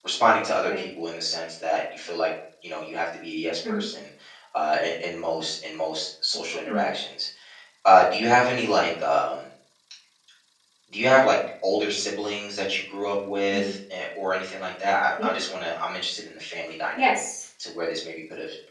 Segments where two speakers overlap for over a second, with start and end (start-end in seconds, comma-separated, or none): none